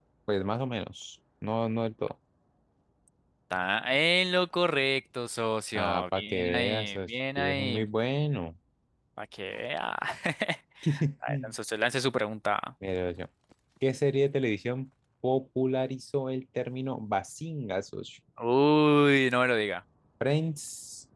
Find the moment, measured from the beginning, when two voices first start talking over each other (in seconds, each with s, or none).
5.8 s